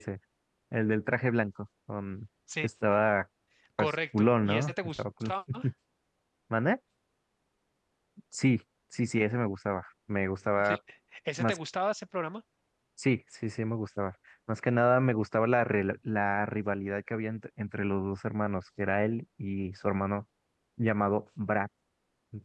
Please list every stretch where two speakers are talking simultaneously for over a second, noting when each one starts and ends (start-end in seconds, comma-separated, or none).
3.8-5.3